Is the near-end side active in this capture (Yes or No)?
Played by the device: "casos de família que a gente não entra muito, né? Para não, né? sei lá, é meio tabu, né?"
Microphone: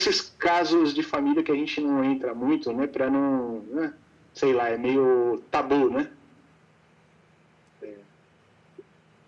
No